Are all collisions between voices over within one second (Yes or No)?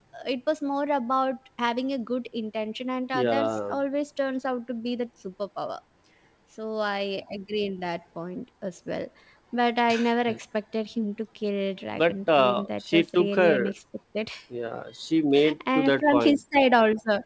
No